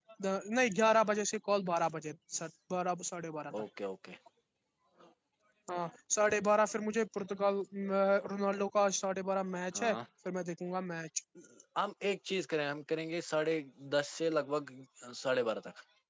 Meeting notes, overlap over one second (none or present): none